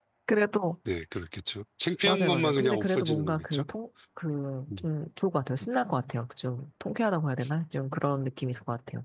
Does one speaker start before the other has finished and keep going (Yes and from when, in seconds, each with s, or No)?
Yes, from 2.0 s